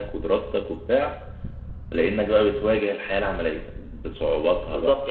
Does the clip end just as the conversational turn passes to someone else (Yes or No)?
Yes